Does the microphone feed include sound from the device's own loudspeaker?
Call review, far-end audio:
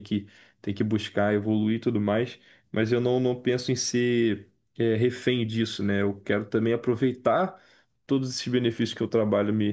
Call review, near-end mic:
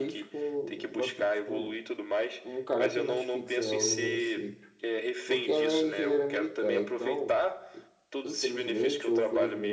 Yes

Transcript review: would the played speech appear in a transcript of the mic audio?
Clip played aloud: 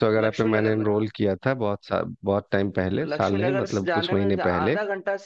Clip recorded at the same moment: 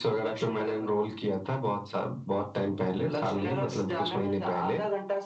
Yes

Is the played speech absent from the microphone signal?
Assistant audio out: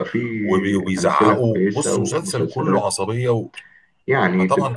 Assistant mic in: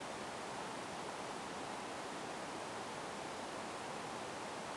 Yes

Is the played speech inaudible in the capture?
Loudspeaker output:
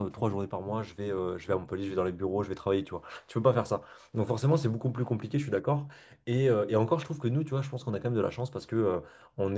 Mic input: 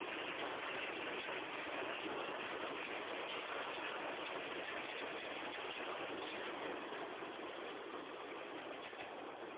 Yes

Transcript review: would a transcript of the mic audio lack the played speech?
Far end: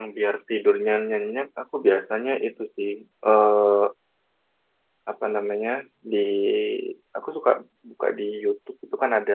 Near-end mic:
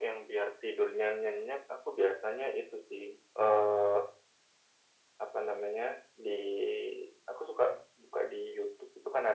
No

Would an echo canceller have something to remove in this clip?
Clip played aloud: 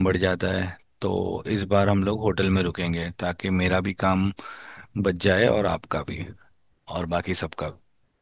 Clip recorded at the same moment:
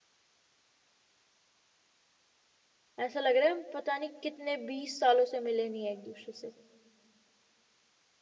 No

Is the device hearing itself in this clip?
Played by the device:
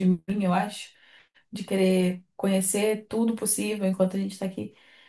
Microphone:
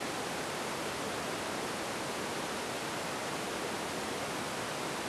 No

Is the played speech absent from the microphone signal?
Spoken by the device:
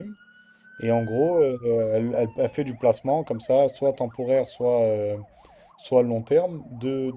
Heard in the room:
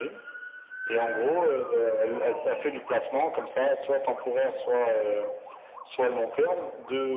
No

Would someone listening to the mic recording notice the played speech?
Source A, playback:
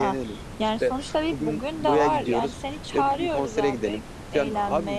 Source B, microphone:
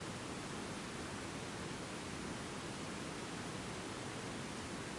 No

